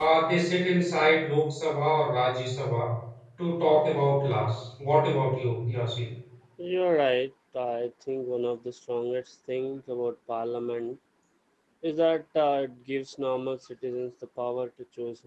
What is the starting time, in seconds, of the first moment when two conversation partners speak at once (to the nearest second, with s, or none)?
none